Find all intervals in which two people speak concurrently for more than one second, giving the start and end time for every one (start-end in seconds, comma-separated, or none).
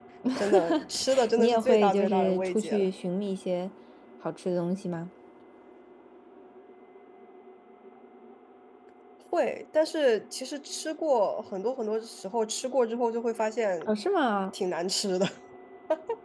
1.4-2.9